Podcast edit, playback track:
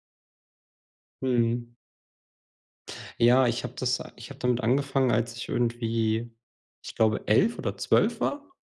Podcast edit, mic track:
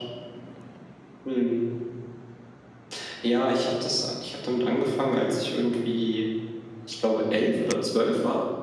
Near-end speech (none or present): none